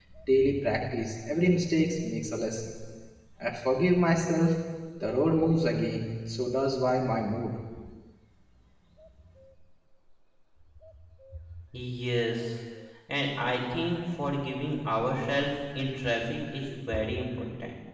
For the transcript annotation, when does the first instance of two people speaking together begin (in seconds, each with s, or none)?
none